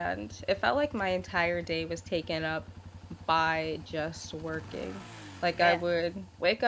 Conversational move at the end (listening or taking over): listening